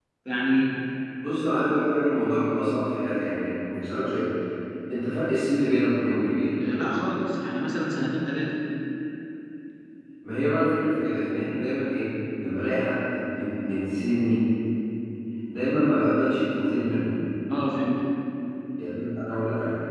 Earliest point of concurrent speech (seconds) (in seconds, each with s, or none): none